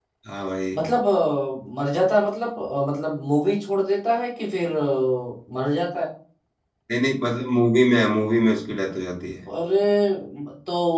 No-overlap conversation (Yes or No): Yes